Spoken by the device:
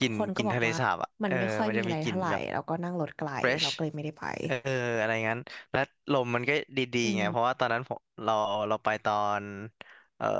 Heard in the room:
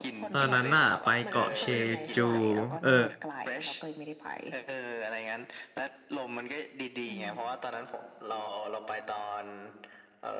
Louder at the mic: user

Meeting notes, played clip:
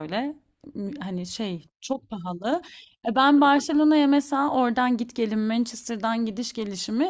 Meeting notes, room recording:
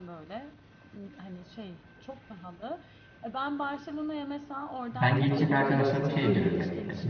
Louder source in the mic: user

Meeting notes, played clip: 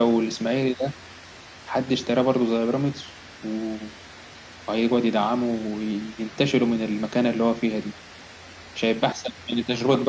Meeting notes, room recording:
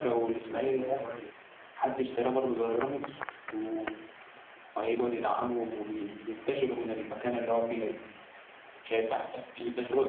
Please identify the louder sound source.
echo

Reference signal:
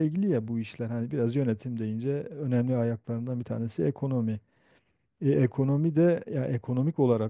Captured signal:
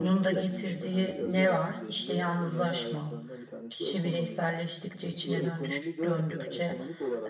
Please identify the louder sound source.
user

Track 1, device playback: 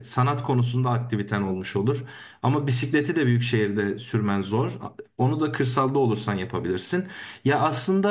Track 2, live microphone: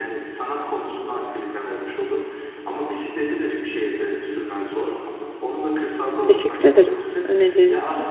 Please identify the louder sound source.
user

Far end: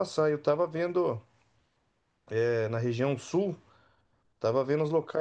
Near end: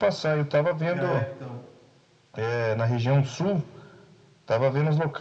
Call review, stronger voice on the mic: echo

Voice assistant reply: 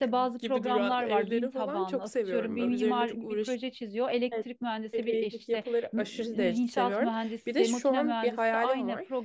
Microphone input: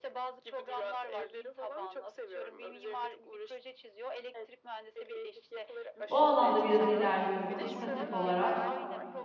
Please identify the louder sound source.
user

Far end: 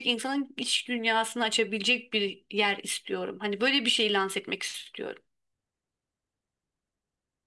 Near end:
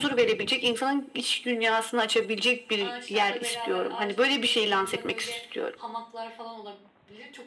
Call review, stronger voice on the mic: echo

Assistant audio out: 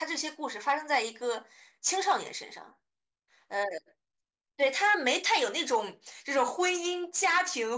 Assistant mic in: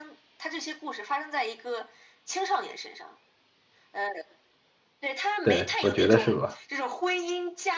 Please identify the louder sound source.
user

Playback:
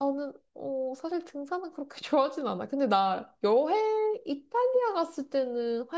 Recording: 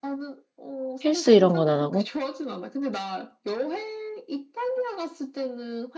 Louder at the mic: user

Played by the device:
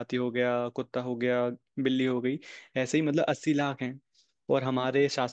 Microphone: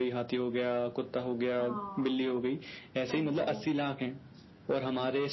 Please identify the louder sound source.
echo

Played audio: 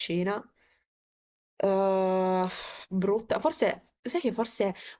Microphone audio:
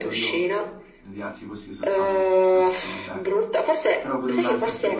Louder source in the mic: echo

